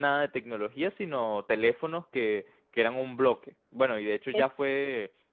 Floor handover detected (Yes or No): No